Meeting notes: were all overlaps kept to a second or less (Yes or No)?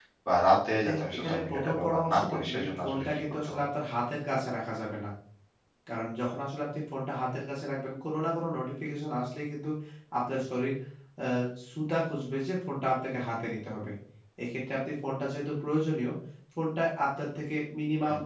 No